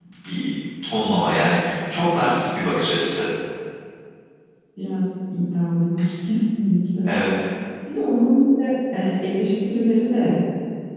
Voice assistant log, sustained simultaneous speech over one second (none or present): none